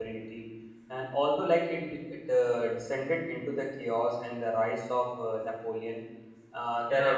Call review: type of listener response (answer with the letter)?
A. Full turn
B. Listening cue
B